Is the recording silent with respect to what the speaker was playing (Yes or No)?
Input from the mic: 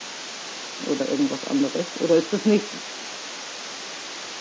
Yes